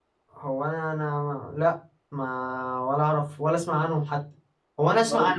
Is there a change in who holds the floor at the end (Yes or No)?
No